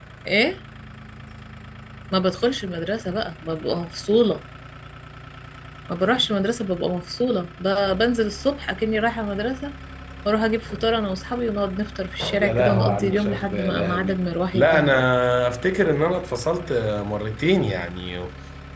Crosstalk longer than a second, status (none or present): present